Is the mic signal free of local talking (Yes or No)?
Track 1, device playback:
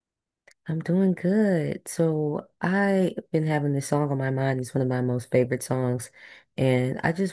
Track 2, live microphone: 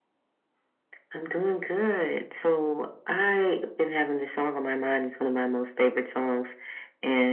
Yes